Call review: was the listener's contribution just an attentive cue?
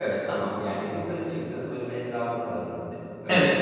No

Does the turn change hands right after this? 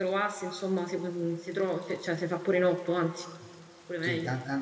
Yes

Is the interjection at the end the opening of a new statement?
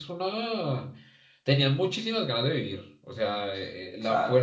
No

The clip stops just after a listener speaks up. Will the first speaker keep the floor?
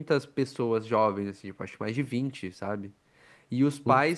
Yes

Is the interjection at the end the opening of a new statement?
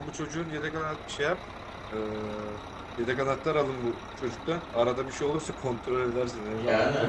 Yes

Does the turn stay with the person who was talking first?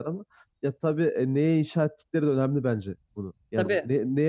Yes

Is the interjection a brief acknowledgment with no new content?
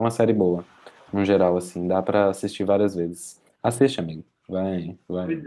No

